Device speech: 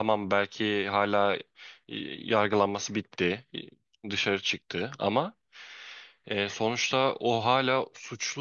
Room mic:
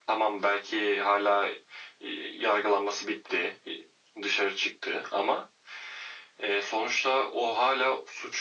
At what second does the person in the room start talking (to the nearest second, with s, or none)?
none